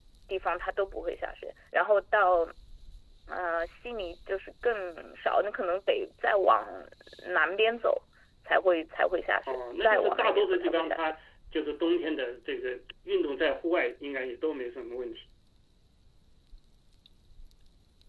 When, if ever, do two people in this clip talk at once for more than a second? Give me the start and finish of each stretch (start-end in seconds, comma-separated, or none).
9.5-11.1